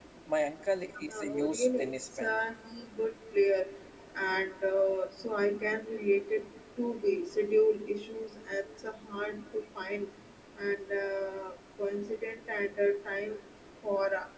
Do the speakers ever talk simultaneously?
Yes, from 1.1 s

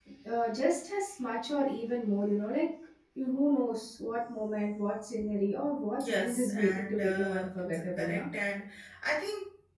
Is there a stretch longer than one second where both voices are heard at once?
Yes, from 5.9 s

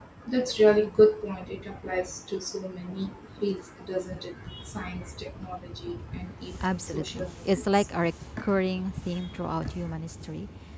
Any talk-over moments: Yes, from 6.6 s

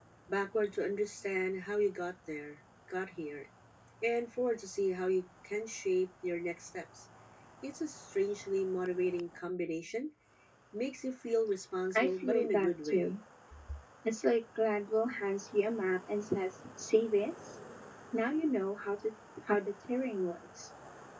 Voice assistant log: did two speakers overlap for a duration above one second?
Yes, from 11.9 s

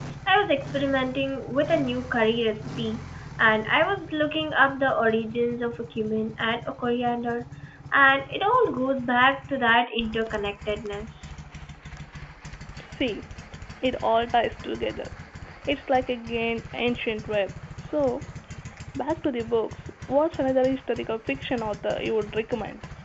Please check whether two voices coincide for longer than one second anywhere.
No

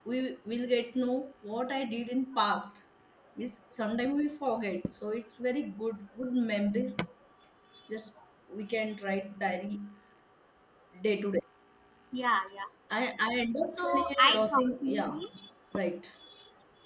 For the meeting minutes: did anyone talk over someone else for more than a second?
Yes, from 13.7 s

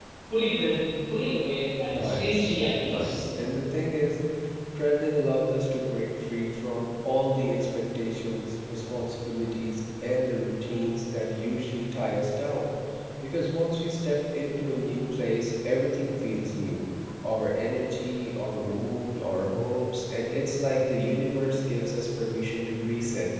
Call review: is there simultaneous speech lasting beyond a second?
Yes, from 1.8 s

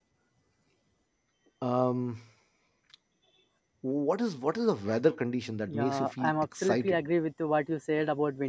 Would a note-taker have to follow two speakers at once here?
Yes, from 5.7 s

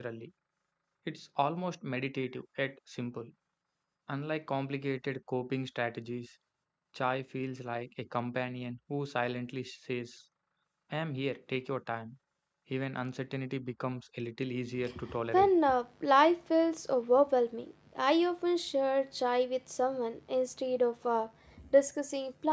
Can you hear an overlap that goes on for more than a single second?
No

